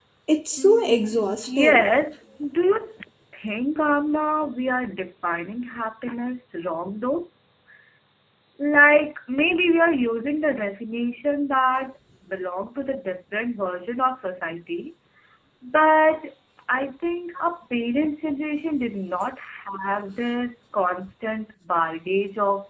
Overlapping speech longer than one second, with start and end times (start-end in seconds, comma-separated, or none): 0.6-1.8